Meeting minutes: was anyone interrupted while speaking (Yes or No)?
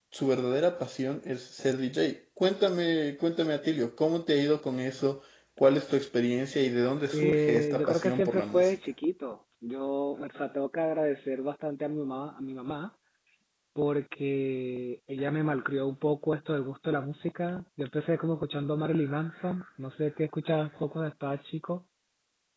Yes